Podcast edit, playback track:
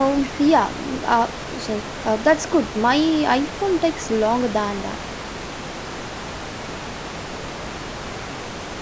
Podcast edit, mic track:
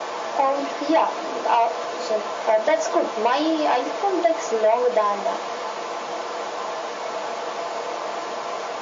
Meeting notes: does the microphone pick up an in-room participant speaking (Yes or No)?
No